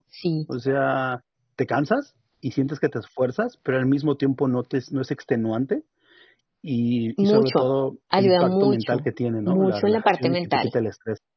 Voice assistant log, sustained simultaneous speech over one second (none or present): present